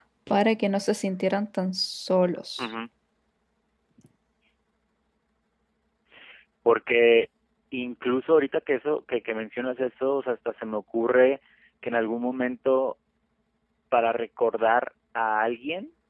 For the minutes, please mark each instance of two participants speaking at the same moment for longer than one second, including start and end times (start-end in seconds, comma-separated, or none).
none